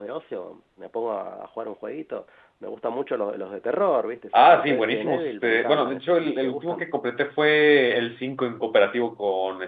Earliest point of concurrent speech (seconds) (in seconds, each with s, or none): 4.3 s